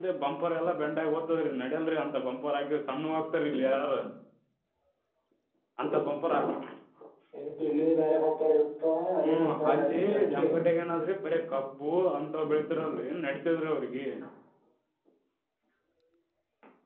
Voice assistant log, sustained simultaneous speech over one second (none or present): present